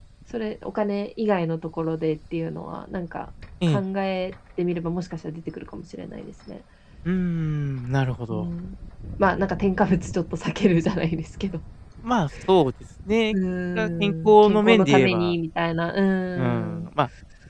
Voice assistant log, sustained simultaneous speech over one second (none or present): present